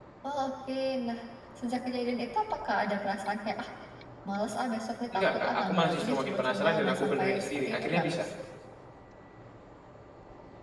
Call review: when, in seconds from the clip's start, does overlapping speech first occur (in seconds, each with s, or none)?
5.1 s